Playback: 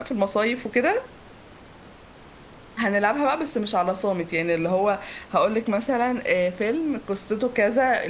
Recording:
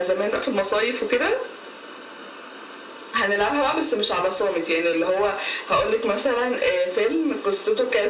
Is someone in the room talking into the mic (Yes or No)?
No